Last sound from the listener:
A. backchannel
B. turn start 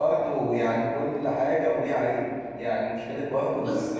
A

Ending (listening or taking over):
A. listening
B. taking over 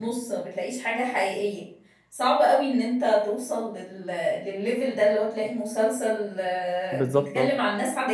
A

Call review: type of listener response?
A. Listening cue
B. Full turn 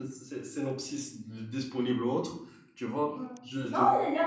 B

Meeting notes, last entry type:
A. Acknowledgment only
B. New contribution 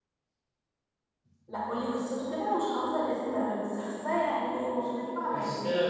B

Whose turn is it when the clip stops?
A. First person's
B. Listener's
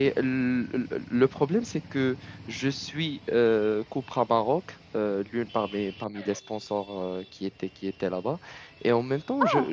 A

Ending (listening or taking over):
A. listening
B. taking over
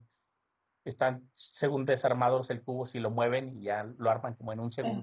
B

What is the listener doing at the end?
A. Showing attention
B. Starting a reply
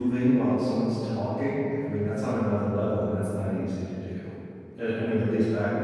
A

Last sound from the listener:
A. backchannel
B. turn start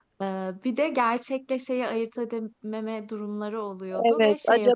B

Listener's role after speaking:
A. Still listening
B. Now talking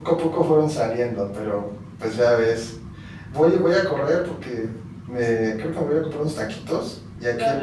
A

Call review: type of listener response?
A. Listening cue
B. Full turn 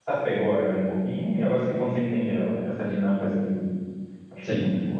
B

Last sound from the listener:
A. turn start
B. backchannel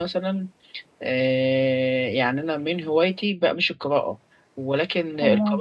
B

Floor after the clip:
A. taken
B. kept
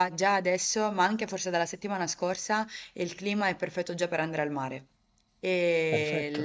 B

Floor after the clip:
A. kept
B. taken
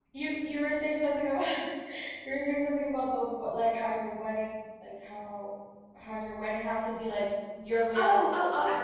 B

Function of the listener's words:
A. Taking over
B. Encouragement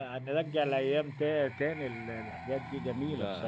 A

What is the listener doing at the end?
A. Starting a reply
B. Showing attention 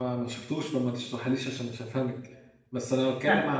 B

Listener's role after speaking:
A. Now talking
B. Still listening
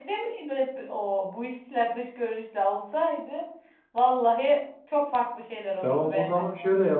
A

